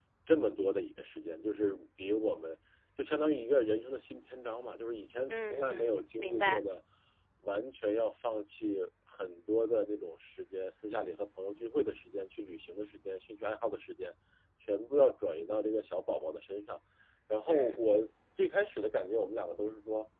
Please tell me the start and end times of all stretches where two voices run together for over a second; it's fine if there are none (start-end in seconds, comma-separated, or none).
5.3-6.6